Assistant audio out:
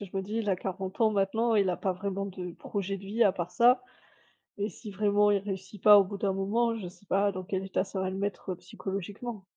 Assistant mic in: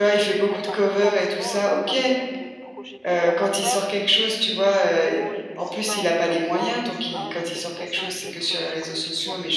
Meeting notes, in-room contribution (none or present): present